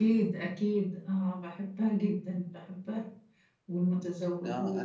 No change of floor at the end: No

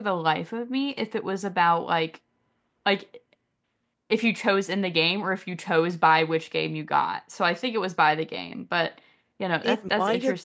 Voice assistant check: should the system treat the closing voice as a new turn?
Yes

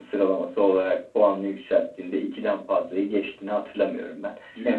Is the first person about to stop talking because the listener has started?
No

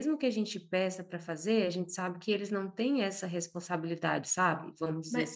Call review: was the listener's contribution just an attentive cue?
No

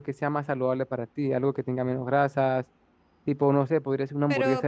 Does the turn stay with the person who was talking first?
No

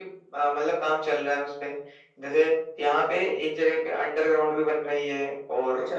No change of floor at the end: Yes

